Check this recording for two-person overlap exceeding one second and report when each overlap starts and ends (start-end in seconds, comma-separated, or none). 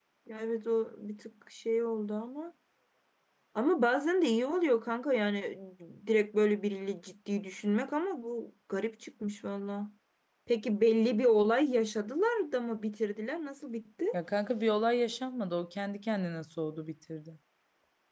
none